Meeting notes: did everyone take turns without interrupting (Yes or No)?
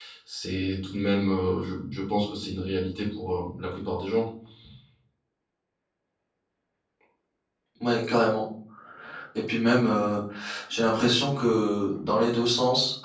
Yes